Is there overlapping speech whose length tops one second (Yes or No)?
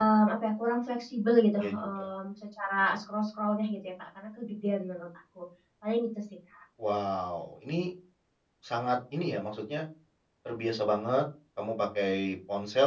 No